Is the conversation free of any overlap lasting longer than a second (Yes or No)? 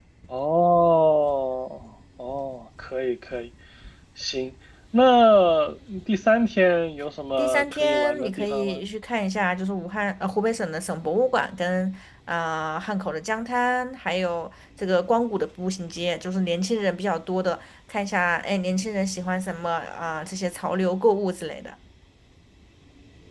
No